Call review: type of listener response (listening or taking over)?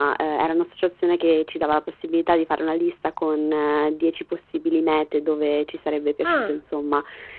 listening